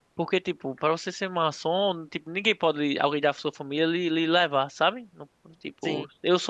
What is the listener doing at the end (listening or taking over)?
listening